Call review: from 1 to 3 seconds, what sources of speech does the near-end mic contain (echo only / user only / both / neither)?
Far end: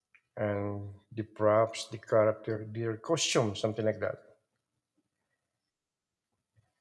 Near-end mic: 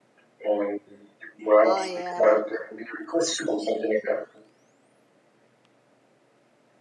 both